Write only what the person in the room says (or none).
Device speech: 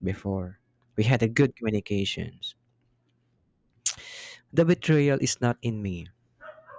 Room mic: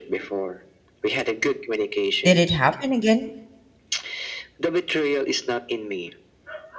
Did it happen again?